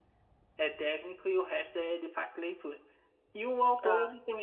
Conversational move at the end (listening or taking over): listening